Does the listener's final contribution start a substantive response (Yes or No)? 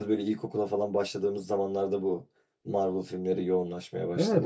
Yes